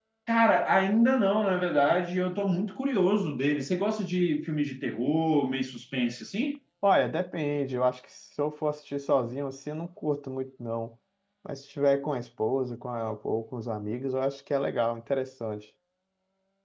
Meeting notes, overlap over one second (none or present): none